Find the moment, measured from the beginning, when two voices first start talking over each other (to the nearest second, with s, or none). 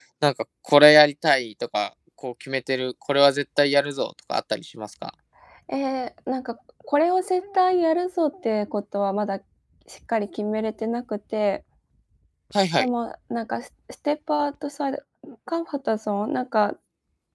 none